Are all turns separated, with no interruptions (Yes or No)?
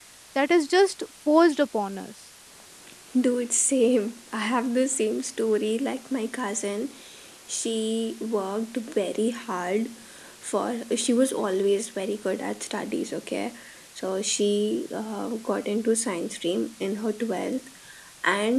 Yes